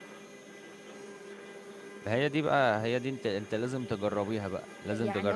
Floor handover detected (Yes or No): Yes